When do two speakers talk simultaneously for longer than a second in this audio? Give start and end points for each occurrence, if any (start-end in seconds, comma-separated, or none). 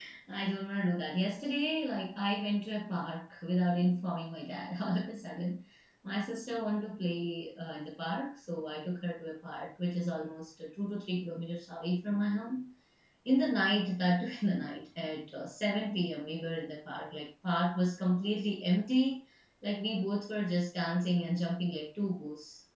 none